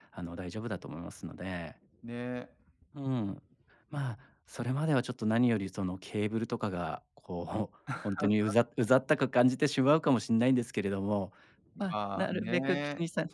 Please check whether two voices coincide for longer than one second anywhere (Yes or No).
Yes